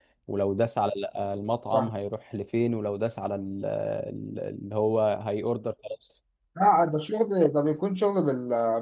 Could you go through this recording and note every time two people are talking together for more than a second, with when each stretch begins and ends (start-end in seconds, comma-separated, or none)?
none